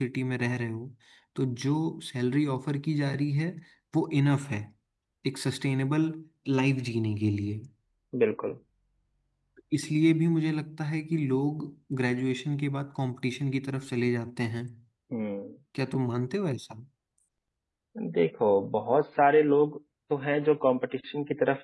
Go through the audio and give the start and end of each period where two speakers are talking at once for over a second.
none

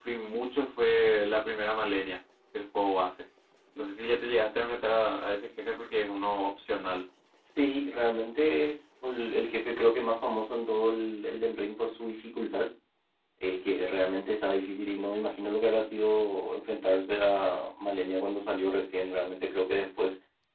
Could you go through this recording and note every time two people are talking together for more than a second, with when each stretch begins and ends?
none

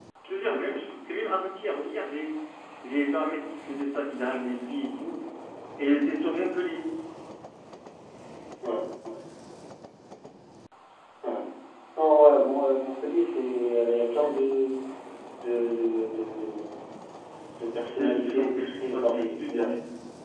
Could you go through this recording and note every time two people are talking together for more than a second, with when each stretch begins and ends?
17.9-19.7

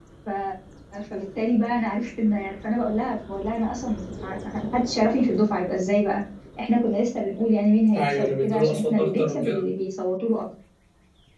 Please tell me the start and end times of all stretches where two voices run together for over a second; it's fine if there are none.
7.9-9.6

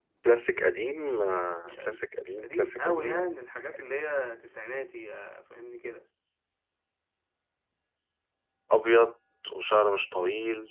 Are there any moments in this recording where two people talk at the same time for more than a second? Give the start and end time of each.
1.6-3.1

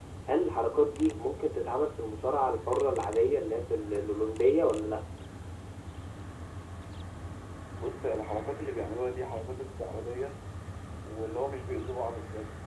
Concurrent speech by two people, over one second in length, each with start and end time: none

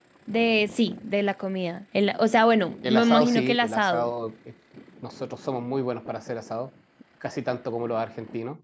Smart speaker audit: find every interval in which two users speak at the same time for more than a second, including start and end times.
2.8-4.1

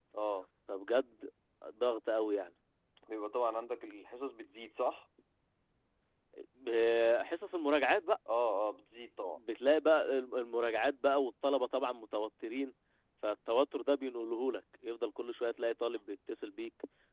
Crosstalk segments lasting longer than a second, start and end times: none

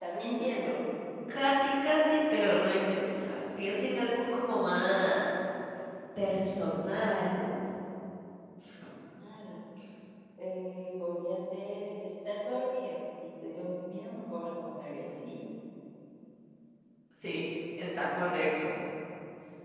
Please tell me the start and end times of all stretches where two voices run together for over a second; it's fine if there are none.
none

